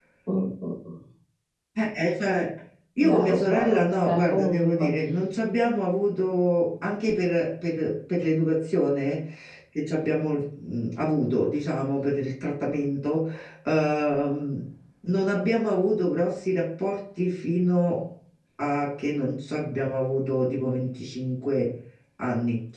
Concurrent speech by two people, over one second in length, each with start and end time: 3.1-4.8

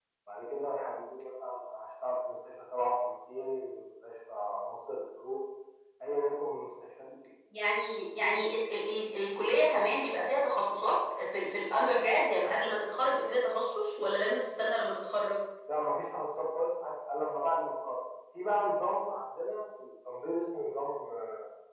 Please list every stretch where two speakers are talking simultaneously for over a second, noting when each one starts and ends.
none

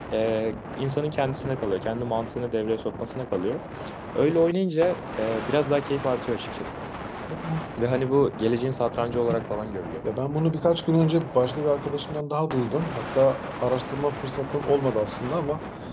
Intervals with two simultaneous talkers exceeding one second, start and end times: none

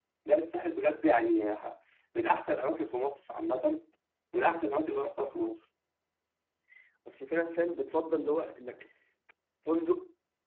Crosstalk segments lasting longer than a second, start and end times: none

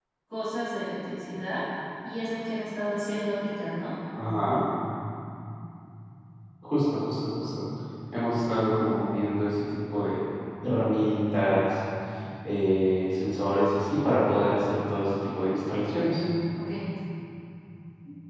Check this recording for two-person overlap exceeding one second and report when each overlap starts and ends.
none

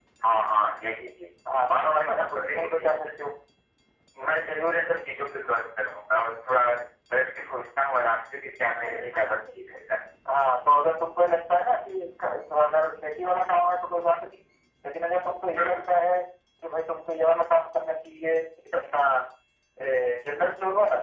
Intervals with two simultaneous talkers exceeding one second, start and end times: 1.7-3.0

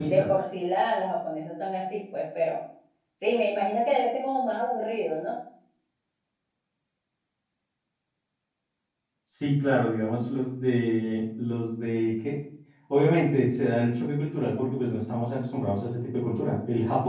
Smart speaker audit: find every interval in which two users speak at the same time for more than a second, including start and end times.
none

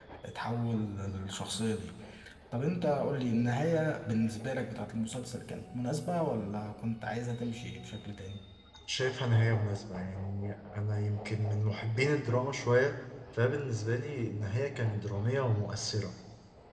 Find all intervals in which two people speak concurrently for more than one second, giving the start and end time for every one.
none

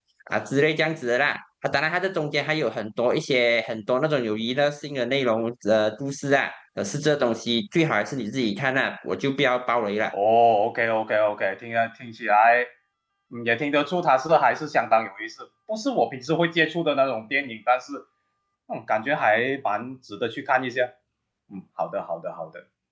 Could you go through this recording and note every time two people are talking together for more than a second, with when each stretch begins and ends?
none

